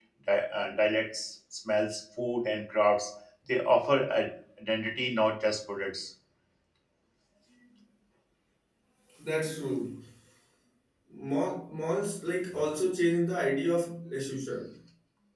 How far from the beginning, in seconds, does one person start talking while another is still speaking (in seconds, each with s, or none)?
none